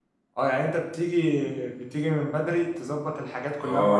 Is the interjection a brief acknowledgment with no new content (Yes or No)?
No